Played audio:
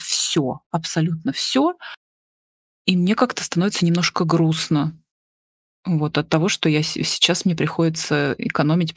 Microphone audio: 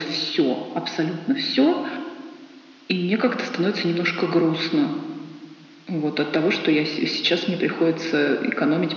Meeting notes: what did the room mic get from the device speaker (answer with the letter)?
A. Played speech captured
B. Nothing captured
A